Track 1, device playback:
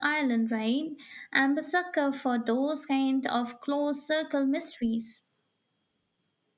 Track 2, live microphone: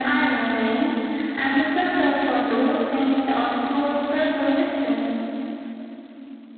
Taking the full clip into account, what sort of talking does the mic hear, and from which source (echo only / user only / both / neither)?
echo only